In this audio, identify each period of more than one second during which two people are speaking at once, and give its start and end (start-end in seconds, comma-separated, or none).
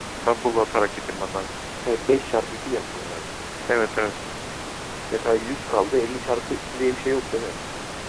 none